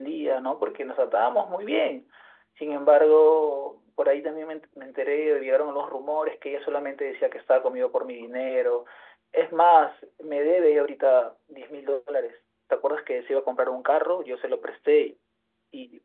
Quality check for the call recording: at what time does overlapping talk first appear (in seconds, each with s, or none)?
none